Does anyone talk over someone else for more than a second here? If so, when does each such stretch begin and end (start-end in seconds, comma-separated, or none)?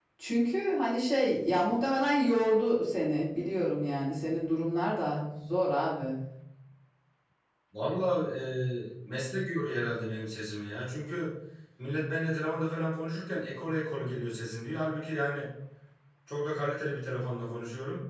none